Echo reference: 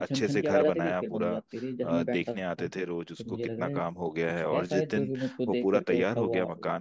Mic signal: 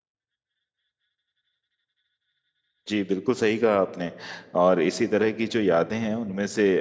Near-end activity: present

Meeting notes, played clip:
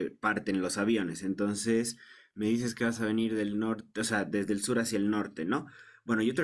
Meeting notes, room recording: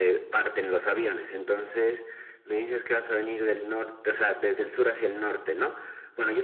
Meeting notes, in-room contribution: none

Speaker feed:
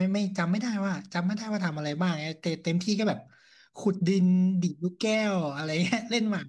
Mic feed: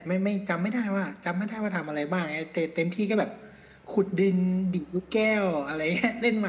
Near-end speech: none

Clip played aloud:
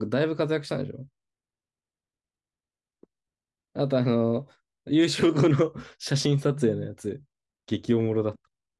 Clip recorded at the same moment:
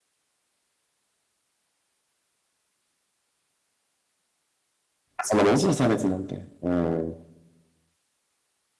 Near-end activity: present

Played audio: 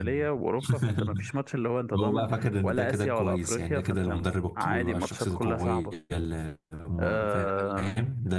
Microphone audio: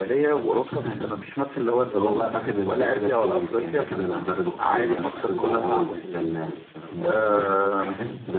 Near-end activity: present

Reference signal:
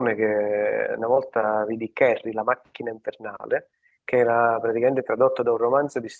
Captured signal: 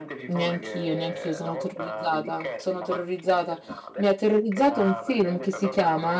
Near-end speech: present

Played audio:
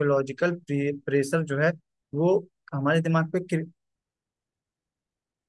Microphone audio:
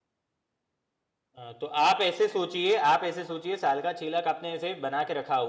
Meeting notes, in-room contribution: present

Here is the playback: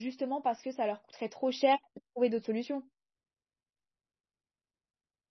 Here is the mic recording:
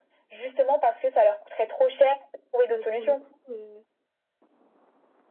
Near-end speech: present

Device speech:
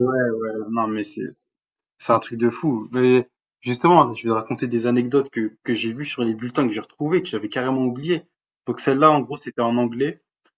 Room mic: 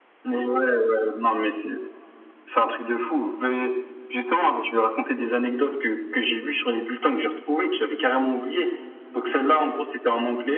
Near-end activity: none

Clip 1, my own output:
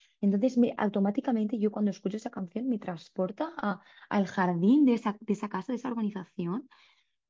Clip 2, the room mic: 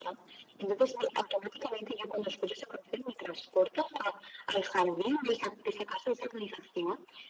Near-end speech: present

